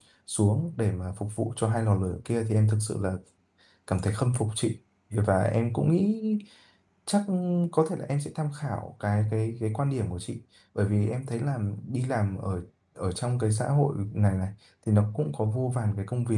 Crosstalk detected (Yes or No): No